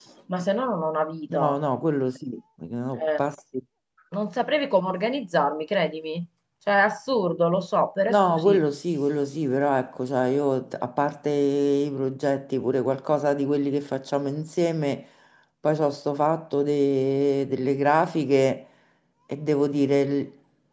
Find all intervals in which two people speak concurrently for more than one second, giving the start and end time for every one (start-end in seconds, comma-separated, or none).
none